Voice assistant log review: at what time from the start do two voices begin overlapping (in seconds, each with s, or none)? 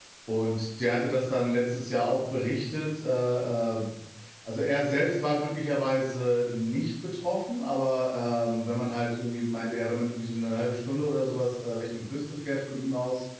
none